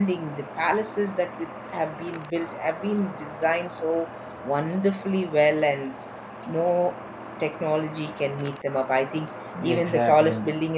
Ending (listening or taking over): listening